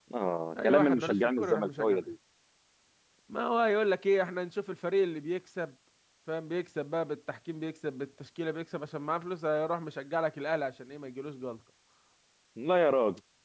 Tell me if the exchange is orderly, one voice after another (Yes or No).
No